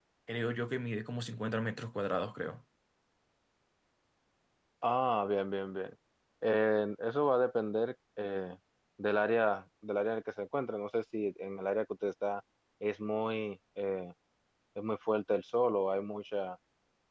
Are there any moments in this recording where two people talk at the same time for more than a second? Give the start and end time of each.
none

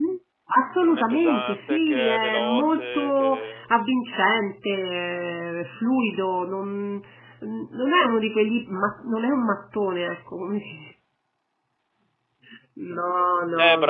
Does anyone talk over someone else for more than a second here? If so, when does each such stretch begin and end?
0.8-3.7

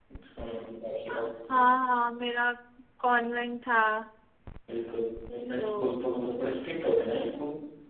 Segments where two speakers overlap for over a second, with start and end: none

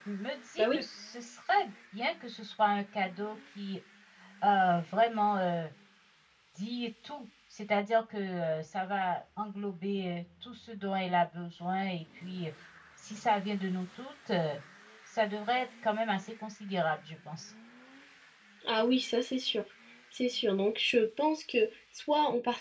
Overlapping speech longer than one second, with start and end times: none

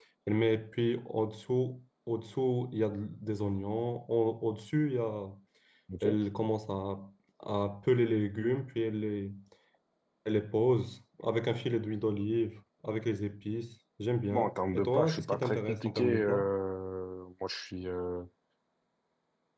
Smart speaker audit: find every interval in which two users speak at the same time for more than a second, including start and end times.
14.3-16.5

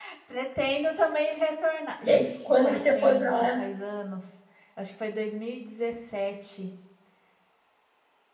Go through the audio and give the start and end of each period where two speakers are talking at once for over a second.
2.1-3.6

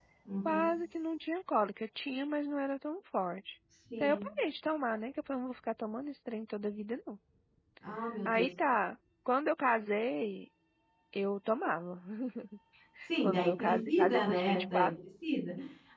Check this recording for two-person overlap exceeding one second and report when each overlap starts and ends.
13.2-14.9

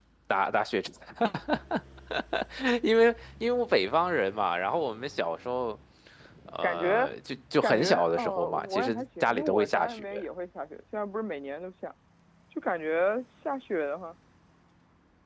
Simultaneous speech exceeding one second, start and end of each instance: 7.6-10.0

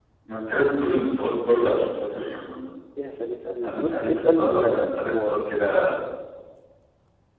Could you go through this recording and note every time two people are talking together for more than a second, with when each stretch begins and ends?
3.6-5.3

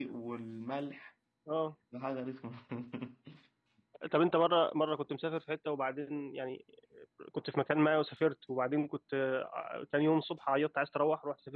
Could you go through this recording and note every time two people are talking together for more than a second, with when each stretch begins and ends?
none

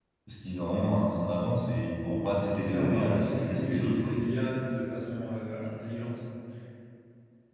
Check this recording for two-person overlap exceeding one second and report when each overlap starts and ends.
2.6-4.1

